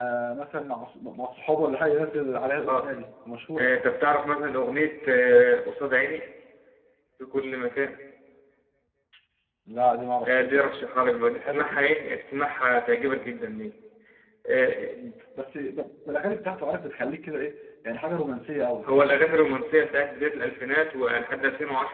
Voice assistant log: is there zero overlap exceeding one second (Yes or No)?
Yes